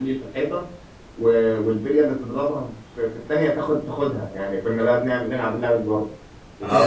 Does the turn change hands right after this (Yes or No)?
Yes